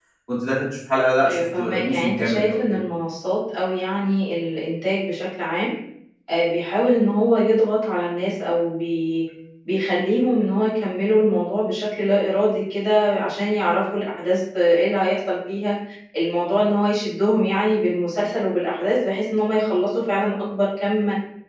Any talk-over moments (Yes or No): Yes